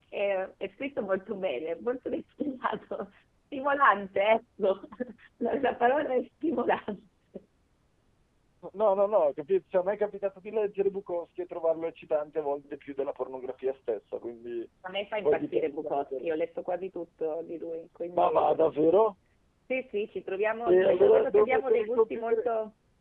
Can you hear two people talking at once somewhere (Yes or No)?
Yes